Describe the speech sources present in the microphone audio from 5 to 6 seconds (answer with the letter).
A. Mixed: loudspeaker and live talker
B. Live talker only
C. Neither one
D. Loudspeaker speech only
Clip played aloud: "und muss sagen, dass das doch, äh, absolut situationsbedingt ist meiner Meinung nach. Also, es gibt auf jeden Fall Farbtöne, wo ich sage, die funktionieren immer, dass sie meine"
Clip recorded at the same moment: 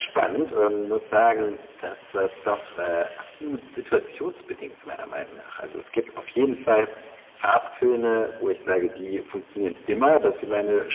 D